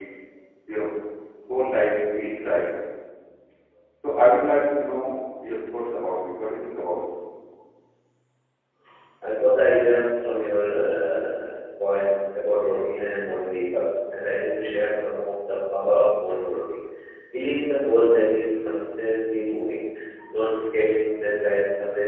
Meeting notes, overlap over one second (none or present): none